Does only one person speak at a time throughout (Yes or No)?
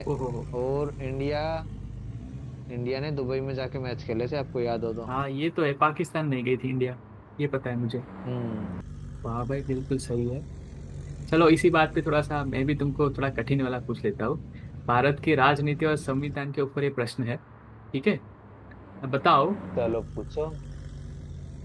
Yes